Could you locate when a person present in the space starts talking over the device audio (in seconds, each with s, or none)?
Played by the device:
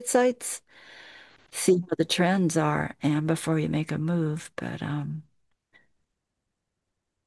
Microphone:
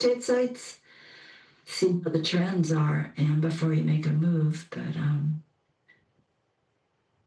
none